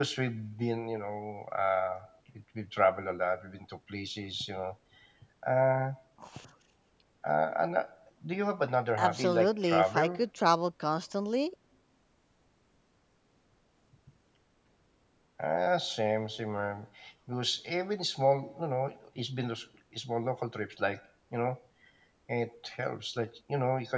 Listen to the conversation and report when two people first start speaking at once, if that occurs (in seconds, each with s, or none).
9.0 s